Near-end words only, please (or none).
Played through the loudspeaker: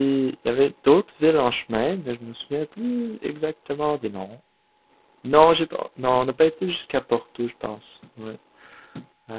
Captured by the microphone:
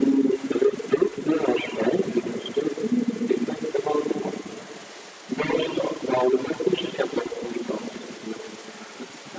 none